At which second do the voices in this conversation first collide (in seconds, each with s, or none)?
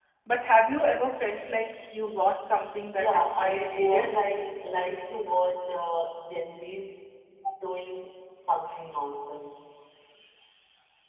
2.9 s